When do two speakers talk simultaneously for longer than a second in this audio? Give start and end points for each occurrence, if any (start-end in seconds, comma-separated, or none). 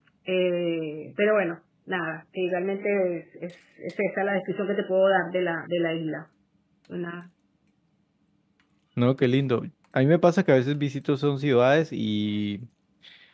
none